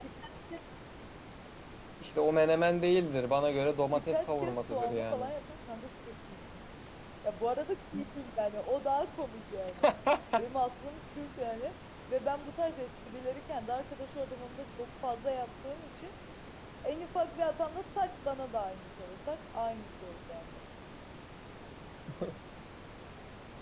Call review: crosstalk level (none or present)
present